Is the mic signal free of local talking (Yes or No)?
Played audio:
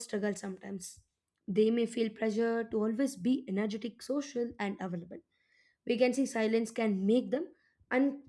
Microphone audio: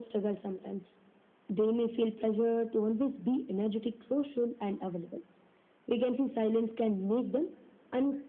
Yes